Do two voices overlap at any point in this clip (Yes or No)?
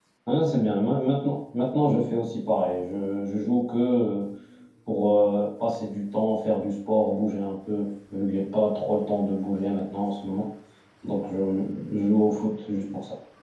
No